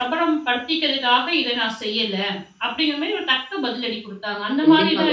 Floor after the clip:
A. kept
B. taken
B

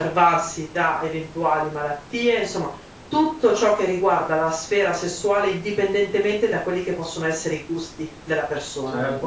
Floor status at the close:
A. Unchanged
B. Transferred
B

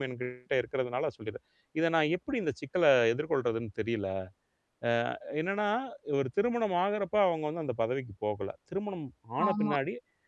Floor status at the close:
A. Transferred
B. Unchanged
B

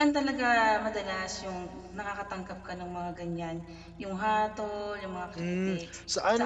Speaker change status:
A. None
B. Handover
B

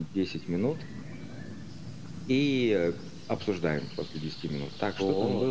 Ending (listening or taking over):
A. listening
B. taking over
A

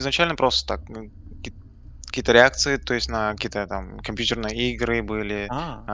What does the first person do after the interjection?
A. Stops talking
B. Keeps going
B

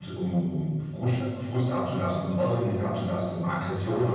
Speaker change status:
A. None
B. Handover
A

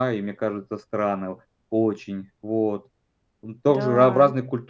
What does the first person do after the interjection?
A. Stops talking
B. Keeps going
B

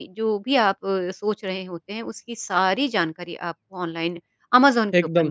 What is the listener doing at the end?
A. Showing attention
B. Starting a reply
B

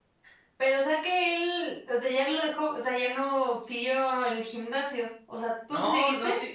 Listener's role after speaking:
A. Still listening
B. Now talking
B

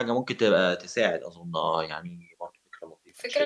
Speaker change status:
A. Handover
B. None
A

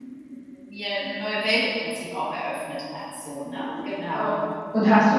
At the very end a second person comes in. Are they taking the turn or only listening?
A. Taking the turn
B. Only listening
A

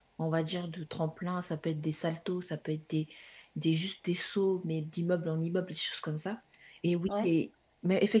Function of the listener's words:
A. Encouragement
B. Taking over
A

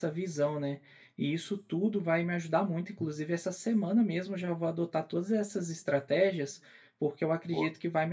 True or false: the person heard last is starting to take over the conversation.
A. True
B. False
B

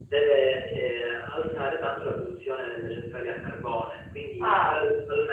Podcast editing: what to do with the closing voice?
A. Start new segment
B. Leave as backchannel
B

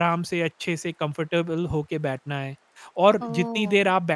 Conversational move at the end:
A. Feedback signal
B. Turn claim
B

